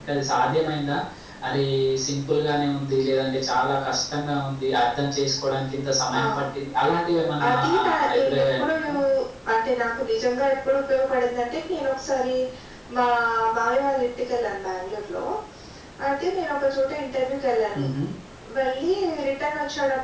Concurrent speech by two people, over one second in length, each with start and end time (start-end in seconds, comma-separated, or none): 7.5-8.9